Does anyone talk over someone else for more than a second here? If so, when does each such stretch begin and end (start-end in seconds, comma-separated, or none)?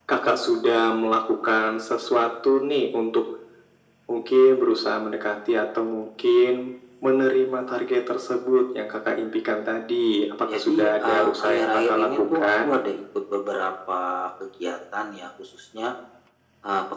10.5-12.5